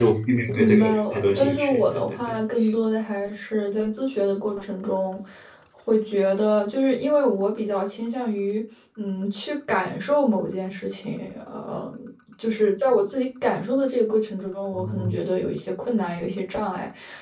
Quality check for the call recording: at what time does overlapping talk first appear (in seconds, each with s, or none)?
0.5 s